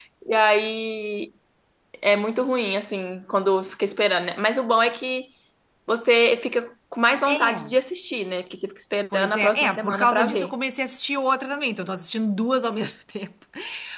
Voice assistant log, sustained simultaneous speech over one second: present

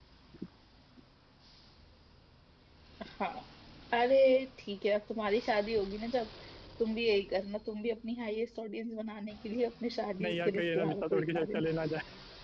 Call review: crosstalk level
present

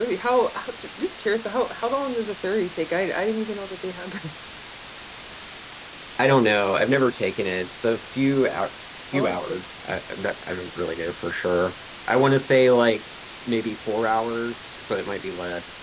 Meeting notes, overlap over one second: none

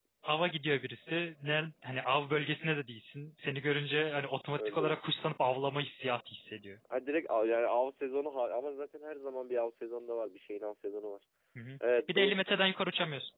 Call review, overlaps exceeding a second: none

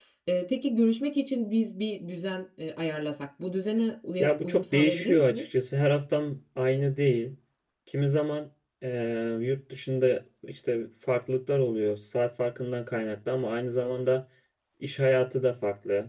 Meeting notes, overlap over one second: present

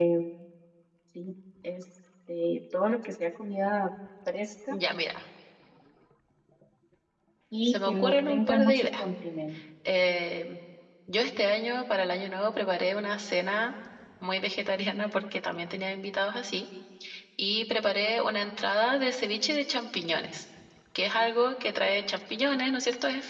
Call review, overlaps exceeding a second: present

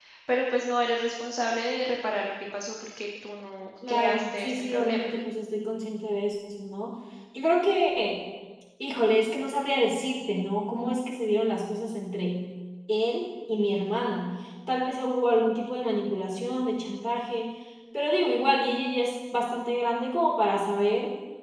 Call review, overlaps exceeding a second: present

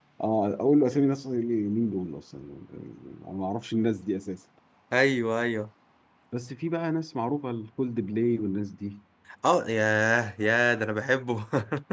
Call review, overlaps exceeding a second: none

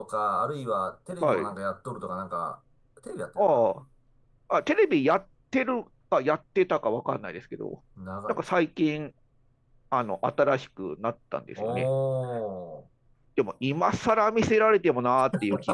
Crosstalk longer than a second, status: none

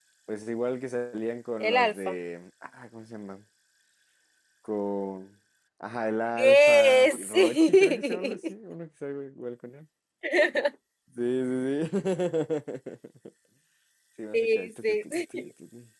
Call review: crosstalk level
present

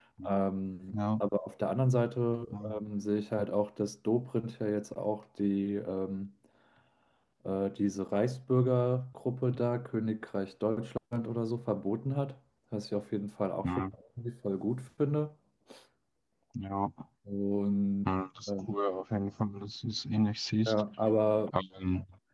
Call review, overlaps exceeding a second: none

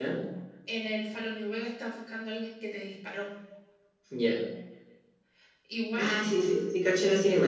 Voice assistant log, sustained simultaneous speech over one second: none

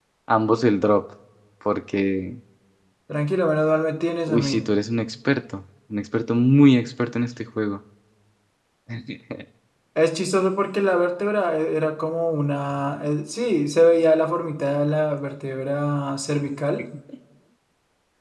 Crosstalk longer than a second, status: none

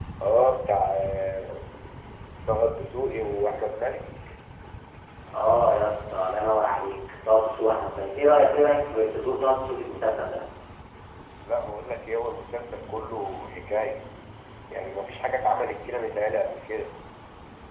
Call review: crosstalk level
none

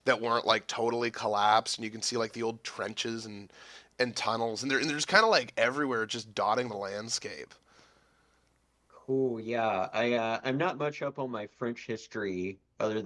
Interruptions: none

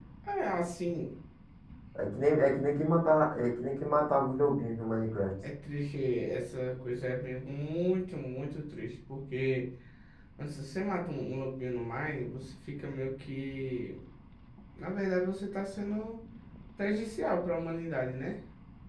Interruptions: none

